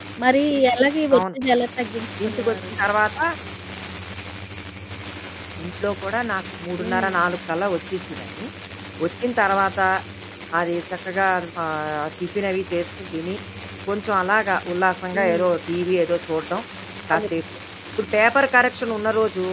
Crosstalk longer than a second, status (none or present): none